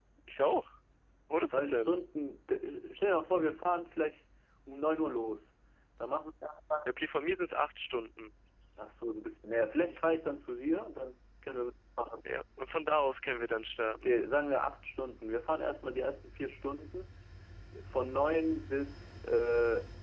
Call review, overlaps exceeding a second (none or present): none